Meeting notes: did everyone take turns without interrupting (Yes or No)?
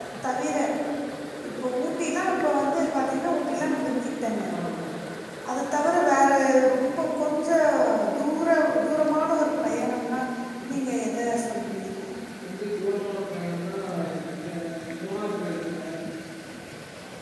Yes